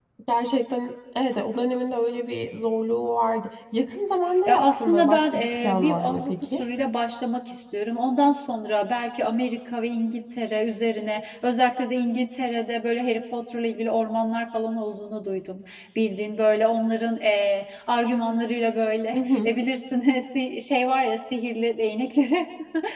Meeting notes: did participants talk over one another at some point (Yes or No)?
Yes